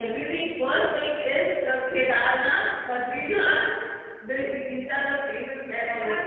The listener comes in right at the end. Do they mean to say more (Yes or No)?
Yes